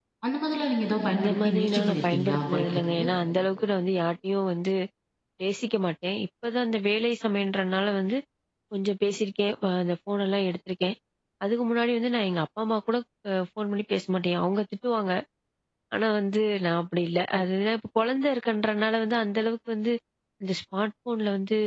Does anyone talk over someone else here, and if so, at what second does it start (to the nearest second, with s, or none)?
1 s